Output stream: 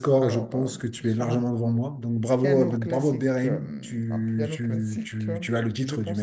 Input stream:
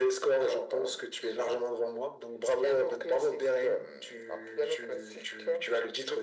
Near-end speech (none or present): none